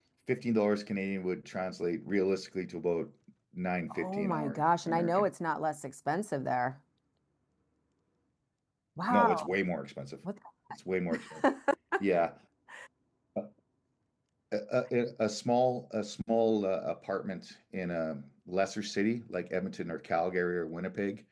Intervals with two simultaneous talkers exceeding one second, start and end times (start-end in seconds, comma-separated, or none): 3.9-5.3